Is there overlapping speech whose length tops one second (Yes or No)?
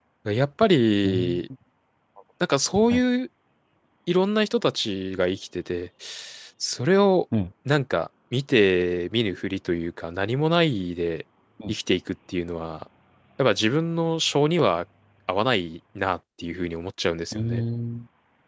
No